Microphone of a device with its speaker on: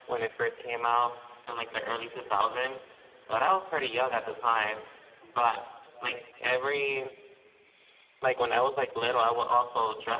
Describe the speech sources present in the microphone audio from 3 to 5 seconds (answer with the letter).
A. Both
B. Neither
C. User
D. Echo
D